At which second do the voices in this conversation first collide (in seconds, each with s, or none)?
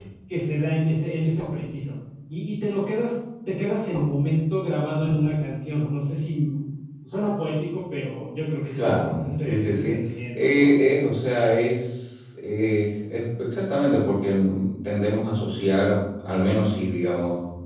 8.7 s